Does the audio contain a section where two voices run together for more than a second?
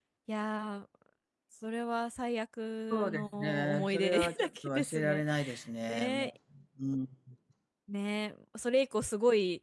Yes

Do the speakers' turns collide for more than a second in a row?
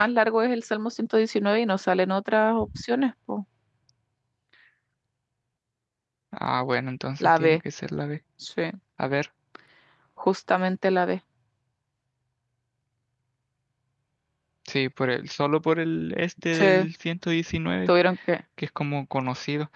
No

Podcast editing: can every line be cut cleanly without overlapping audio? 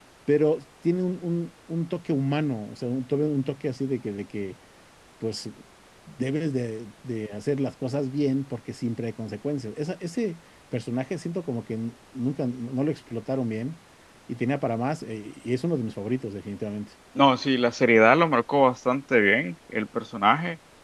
Yes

